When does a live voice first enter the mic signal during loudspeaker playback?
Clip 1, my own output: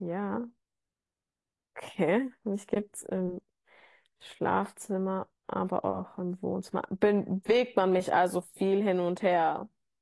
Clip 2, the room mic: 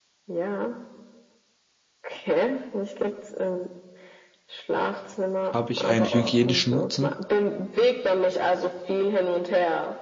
5 s

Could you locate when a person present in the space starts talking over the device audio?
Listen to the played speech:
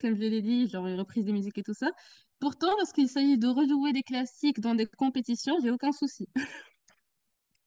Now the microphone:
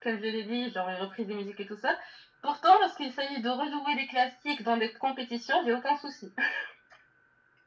none

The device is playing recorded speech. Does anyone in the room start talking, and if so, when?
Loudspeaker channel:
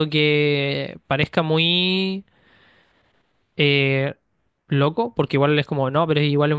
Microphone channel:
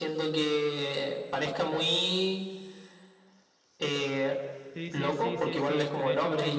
5 s

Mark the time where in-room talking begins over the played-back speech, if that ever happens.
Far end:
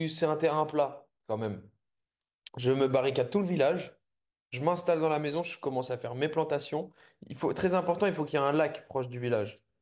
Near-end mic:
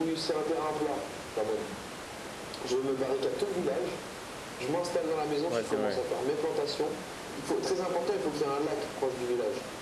5 s

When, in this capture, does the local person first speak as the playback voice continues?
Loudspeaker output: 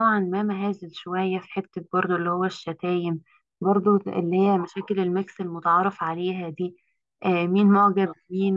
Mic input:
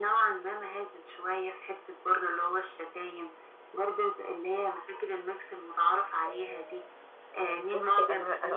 6 s

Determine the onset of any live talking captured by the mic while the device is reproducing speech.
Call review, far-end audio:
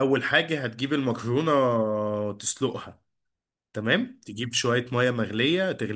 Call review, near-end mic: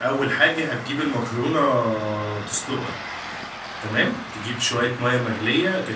none

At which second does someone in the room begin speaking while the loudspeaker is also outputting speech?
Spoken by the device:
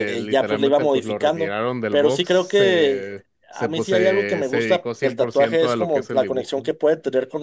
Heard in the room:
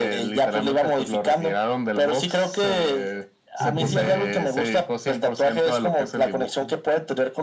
4 s

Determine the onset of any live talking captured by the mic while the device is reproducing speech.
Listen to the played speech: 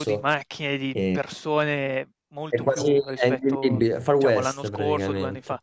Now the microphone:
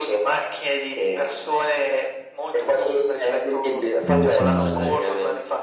4 s

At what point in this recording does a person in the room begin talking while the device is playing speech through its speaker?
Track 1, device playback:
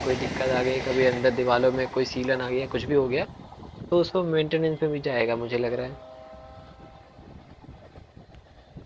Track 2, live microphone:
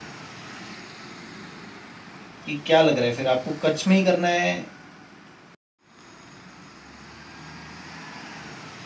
2 s

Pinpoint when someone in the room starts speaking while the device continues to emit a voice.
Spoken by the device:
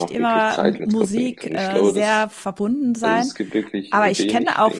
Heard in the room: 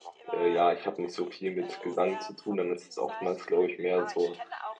0 s

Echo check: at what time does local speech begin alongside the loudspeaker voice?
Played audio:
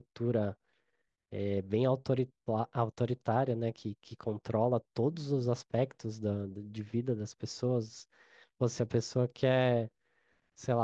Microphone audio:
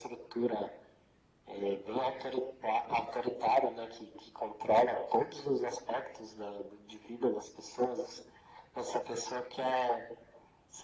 none

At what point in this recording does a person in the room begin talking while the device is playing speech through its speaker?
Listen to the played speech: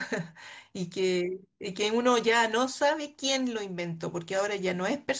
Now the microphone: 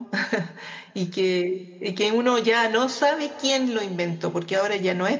none

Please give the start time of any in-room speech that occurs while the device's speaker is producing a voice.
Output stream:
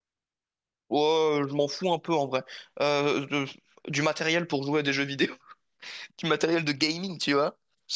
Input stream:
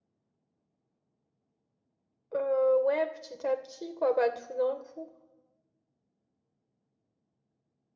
2 s

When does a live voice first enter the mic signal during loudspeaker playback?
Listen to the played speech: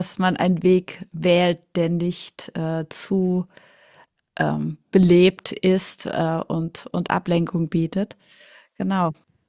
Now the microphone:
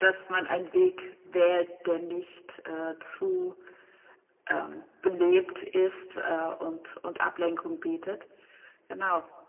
none

